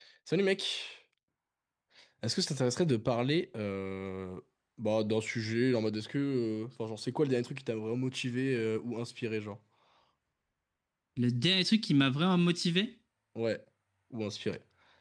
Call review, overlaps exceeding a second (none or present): none